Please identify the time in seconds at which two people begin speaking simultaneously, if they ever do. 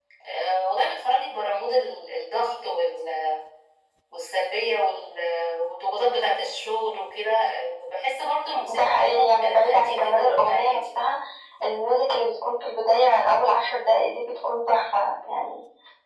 8.6 s

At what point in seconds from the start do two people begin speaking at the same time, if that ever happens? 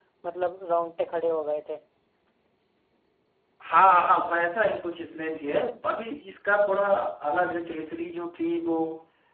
none

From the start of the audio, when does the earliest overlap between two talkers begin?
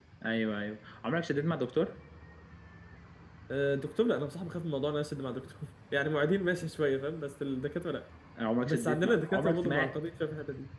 8.6 s

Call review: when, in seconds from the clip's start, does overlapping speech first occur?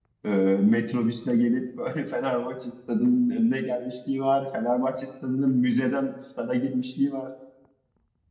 none

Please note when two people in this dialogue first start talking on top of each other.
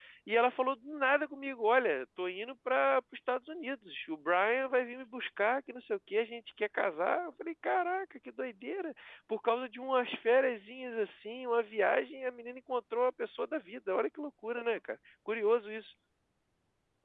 none

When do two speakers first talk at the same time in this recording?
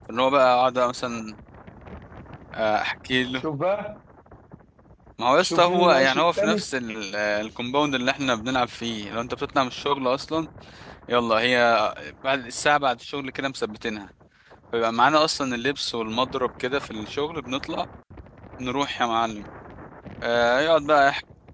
5.4 s

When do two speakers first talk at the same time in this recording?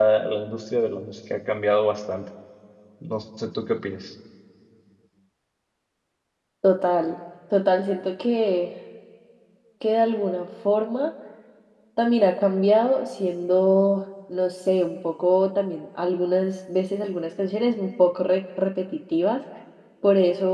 none

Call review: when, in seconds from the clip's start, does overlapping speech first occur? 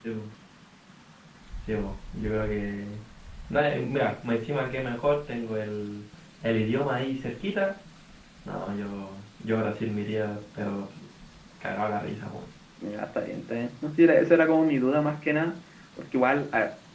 none

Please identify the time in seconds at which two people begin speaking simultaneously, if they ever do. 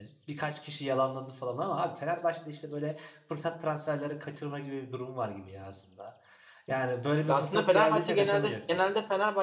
7.3 s

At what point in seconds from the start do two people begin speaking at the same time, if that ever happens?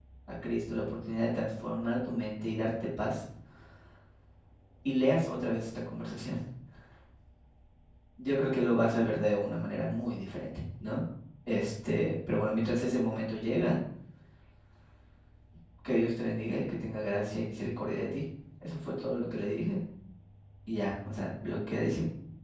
none

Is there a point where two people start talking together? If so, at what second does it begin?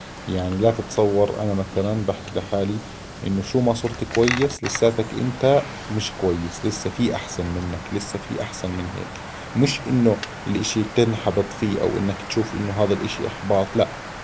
none

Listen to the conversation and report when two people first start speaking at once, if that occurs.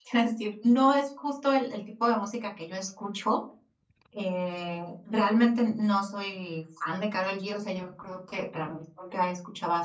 none

